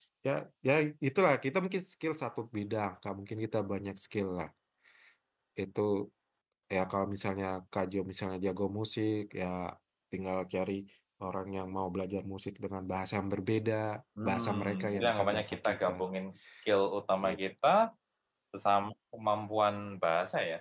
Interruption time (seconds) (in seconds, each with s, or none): 14.2 s